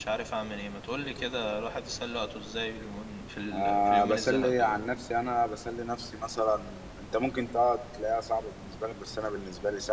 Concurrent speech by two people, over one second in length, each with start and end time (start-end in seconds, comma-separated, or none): 3.5-4.7